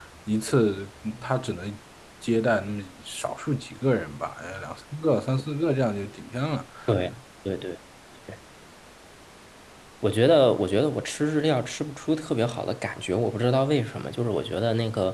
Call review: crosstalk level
none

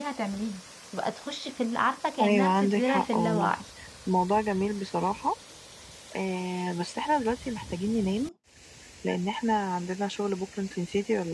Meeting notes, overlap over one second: present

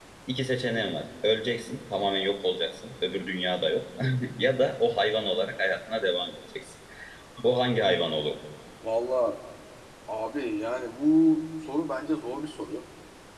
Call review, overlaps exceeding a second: none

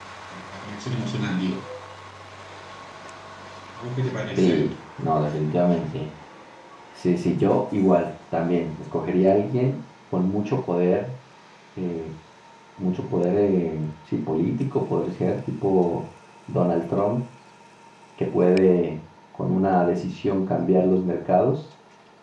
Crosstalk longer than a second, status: none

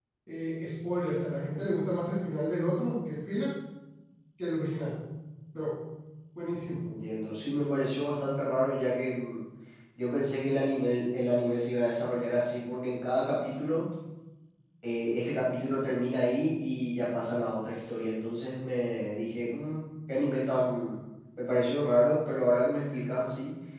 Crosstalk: none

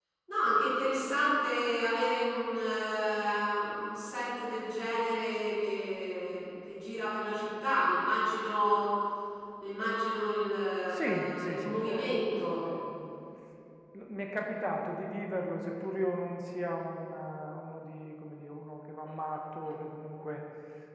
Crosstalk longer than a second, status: present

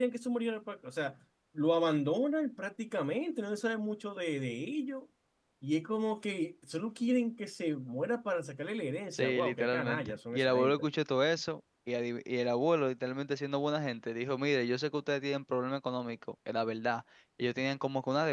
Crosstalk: present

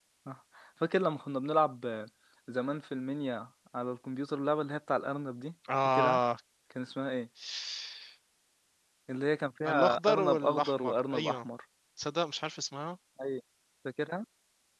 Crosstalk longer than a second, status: present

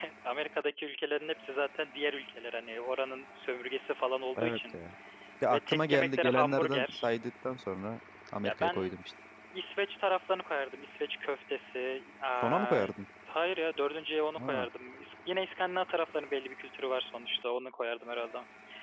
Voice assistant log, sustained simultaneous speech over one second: present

